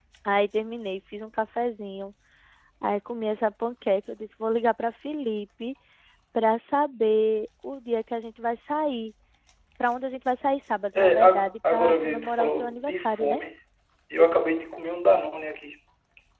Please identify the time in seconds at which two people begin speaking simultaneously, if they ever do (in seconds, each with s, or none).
10.9 s